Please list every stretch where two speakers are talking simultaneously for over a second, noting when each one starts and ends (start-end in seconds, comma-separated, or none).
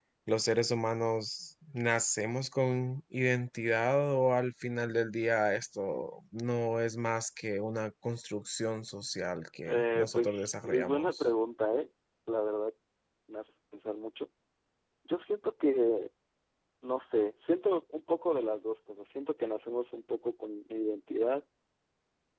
9.7-11.2